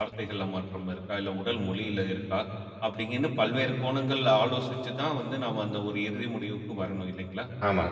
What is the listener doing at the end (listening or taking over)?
taking over